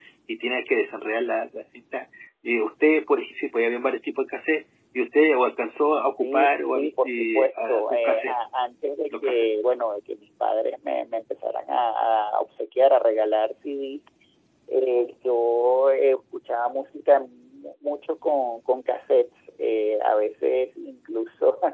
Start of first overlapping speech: 6 s

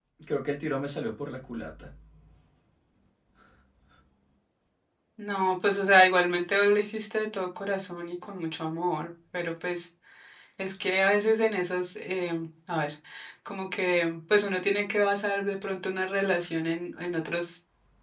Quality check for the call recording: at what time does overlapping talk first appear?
none

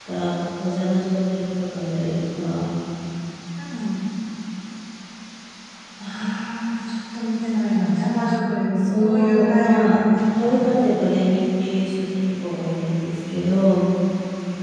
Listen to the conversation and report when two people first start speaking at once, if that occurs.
9 s

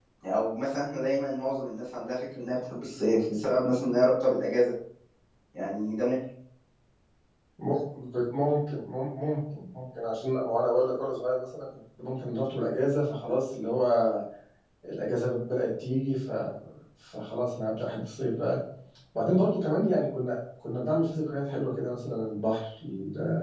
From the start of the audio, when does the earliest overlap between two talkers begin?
none

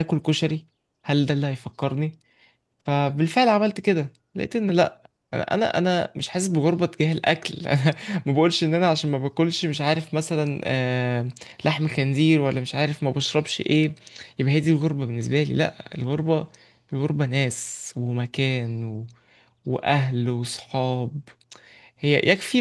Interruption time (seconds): none

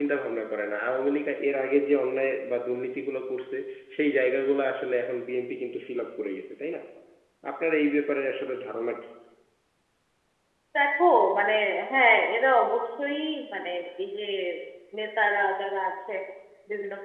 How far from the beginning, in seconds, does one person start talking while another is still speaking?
none

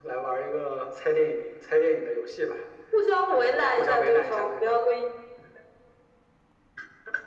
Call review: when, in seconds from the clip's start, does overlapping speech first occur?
3 s

